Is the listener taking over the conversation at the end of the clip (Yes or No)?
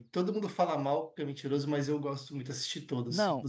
Yes